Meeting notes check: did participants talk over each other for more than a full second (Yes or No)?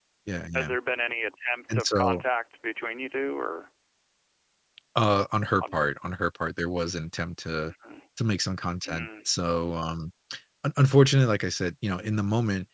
No